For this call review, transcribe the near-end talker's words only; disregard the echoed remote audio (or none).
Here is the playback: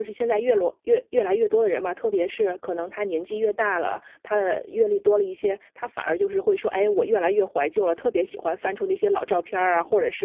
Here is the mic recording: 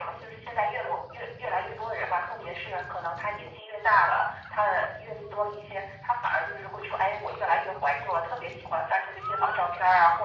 none